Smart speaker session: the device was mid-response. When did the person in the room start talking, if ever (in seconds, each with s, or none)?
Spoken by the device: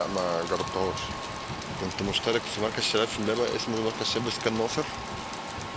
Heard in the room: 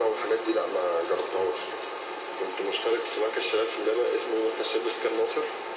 none